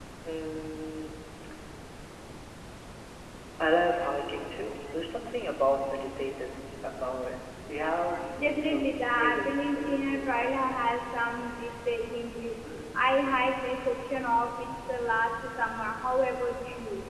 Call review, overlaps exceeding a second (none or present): present